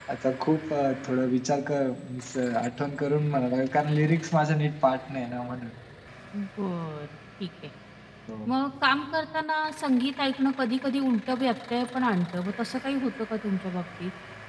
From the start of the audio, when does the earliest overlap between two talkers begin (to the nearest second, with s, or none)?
none